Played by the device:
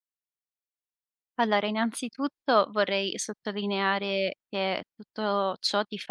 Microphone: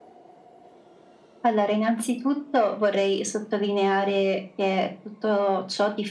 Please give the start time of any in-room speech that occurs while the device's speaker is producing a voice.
none

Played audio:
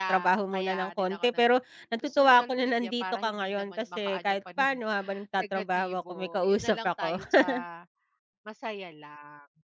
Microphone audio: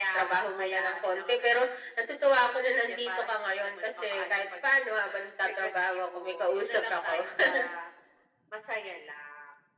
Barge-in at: none

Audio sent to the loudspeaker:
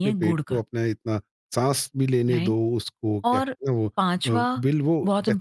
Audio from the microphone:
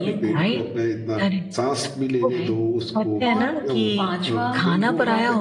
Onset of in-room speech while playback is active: 0.3 s

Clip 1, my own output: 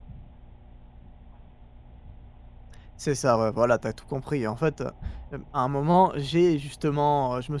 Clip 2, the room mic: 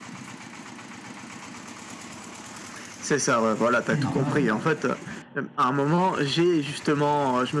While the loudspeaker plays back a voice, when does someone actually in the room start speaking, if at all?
3.9 s

